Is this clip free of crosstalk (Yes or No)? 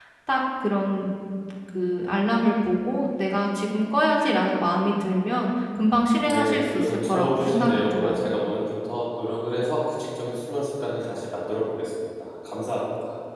No